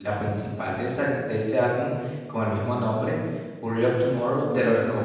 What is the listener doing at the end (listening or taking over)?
listening